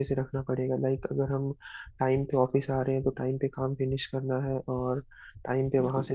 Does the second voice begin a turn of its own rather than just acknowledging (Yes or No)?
Yes